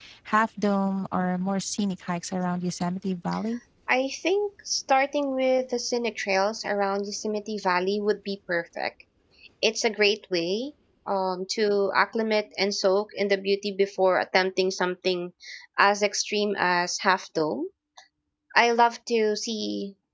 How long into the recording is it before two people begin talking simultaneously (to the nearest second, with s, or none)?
none